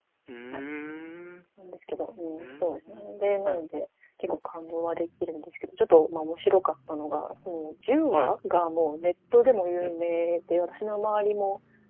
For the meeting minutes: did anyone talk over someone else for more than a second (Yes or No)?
Yes